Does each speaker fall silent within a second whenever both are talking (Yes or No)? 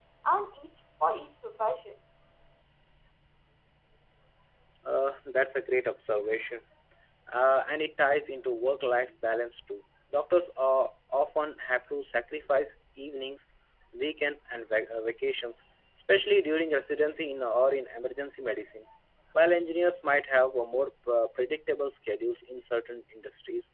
Yes